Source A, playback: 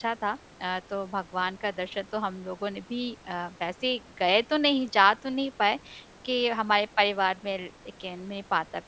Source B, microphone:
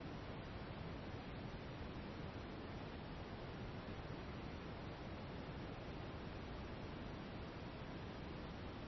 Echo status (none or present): none